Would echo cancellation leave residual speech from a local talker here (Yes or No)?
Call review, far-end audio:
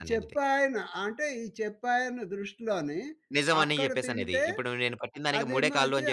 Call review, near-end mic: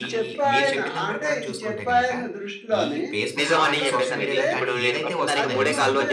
Yes